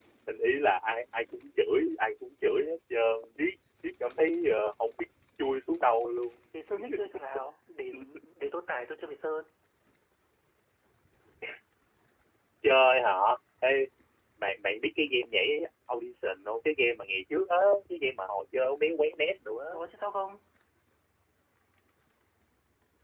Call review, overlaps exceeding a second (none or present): none